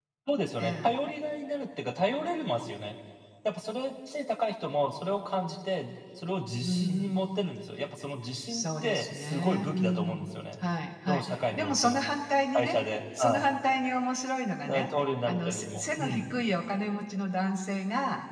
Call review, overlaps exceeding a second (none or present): present